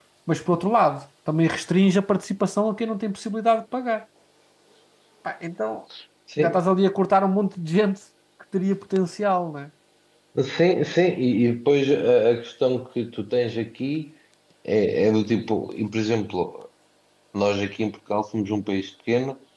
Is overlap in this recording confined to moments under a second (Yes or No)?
Yes